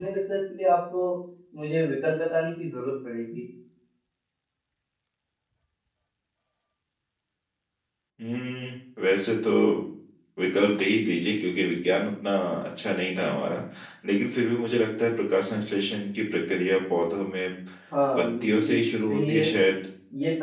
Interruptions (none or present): present